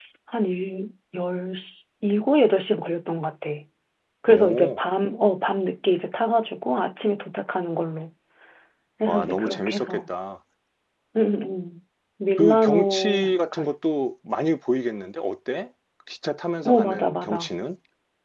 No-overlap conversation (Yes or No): No